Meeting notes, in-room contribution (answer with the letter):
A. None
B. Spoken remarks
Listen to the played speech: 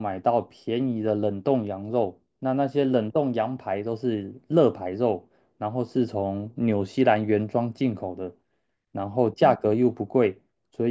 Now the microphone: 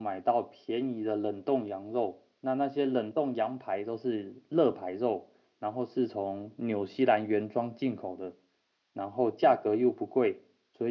A